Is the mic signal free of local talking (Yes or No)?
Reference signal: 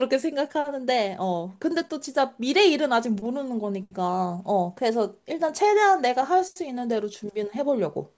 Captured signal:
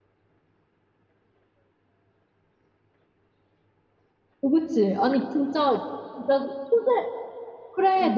No